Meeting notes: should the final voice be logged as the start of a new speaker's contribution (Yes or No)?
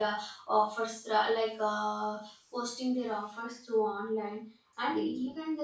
No